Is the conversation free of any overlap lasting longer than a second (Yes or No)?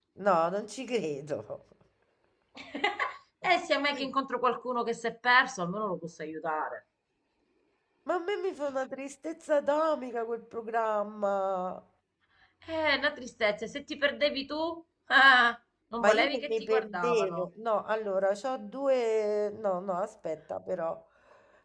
No